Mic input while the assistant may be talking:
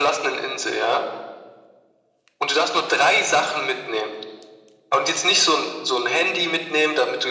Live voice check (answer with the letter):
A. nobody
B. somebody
A